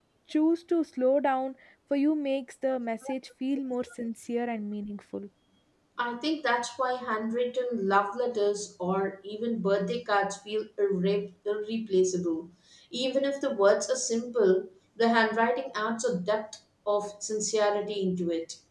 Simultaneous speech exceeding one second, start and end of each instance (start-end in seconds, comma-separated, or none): none